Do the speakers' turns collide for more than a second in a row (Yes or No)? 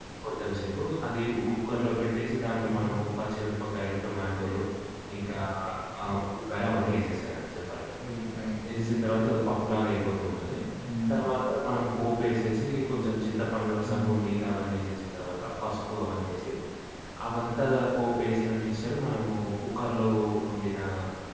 No